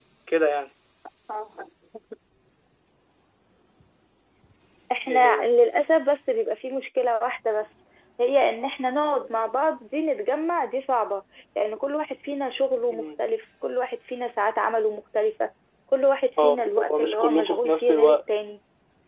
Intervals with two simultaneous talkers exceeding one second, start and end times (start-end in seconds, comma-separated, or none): 16.4-18.2